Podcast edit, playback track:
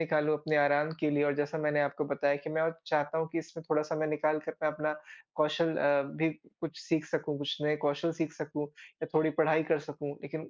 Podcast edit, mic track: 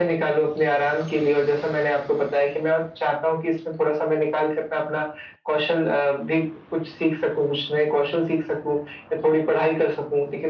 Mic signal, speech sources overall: echo only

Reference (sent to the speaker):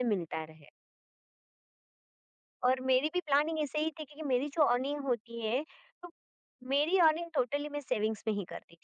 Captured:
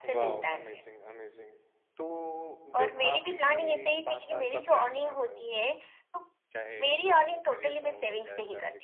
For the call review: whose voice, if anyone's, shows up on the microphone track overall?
both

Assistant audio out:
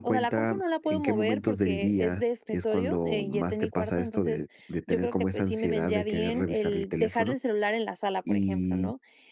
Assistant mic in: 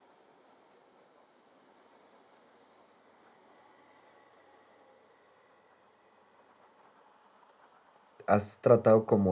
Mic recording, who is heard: user only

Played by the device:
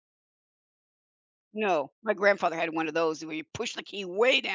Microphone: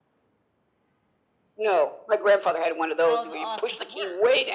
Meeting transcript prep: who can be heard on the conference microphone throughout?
both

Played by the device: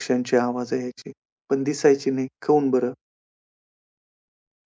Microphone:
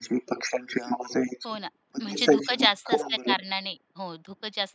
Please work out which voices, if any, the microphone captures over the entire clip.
both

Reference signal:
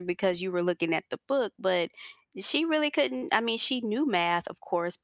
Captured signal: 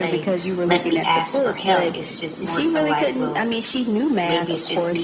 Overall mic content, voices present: both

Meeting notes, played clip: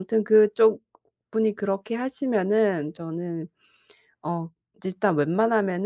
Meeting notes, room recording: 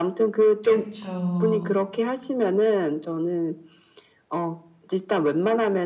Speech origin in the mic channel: both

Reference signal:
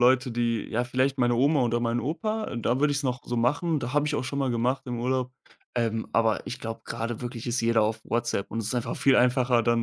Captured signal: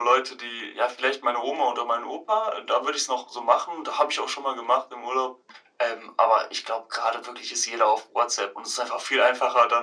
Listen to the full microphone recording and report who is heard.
echo only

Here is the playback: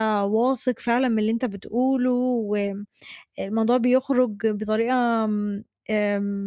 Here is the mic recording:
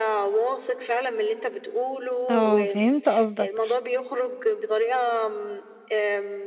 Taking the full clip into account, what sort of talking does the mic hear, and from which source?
both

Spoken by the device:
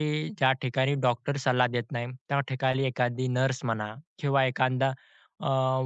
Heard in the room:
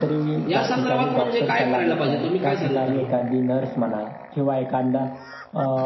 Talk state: both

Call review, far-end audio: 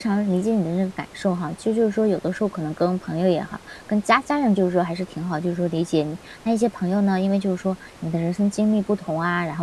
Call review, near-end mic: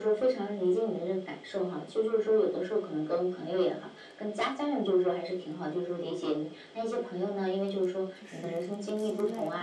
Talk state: both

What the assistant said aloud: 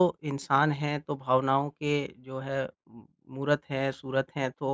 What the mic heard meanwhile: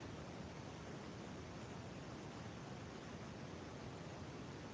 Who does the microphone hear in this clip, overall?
neither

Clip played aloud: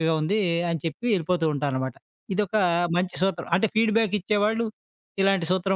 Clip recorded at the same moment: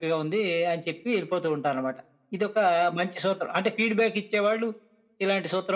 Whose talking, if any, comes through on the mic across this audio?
echo only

